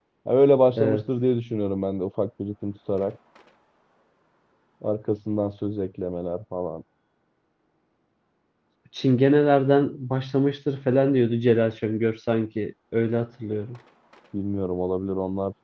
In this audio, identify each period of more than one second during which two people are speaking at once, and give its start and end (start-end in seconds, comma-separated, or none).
none